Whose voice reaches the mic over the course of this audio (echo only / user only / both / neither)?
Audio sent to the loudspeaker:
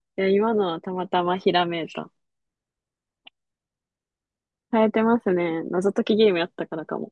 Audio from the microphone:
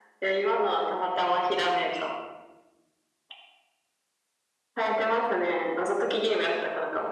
echo only